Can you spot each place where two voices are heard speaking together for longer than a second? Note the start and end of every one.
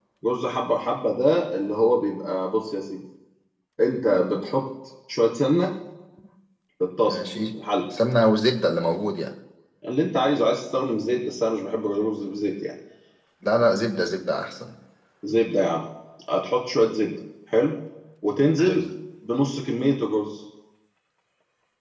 none

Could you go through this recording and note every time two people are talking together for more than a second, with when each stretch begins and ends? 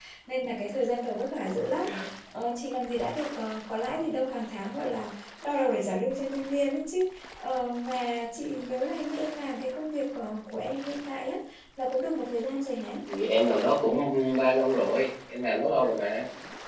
none

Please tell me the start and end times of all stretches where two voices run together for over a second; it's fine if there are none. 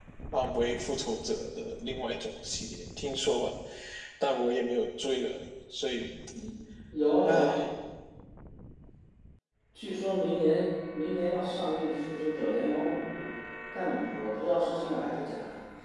none

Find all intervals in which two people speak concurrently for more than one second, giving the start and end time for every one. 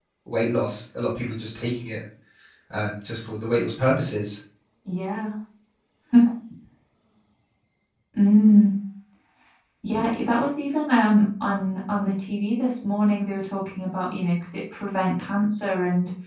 none

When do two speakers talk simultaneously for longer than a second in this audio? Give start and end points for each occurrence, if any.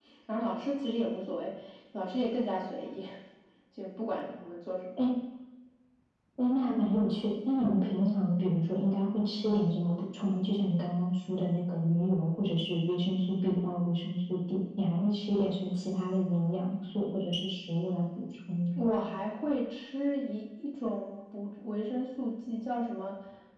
none

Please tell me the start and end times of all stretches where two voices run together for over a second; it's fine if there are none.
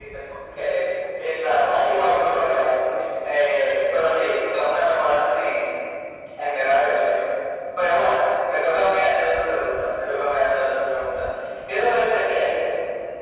1.4-2.8

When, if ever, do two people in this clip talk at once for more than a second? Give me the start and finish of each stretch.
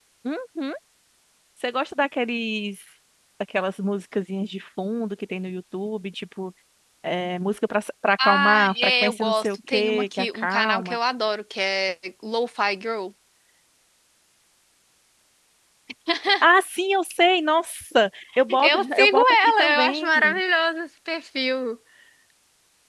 8.2-10.9, 18.6-20.1

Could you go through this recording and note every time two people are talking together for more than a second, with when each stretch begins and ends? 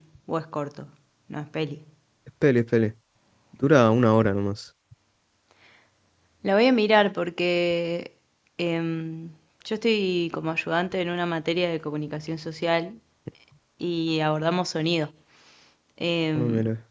none

